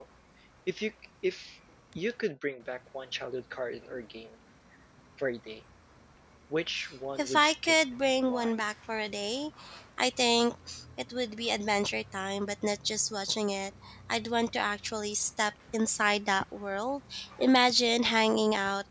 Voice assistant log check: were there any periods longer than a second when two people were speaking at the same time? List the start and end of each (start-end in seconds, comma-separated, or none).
7.2-8.5